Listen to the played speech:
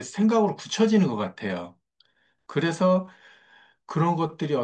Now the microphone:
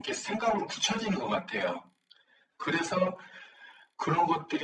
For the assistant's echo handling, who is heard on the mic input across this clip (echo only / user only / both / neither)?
echo only